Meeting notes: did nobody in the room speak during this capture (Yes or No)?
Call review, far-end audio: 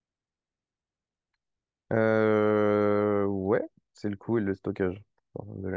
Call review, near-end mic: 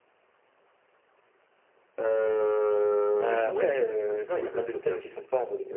No